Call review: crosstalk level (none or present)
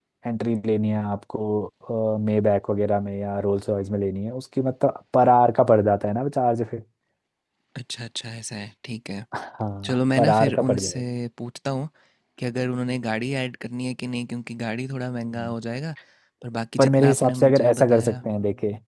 present